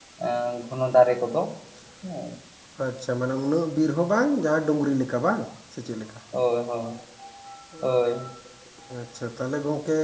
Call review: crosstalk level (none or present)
none